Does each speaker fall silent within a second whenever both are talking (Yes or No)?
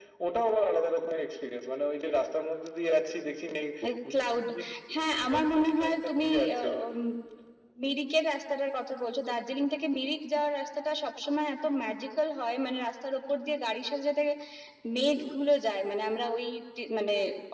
No